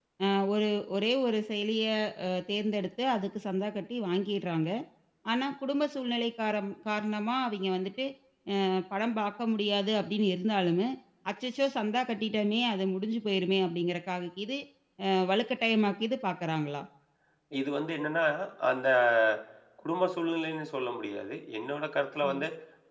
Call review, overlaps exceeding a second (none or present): none